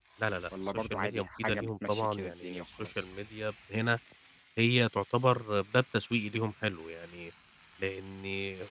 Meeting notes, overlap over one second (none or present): present